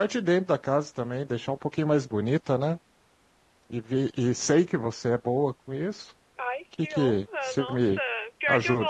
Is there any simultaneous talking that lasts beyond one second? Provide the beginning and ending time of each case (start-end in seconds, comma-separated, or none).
6.8-8.0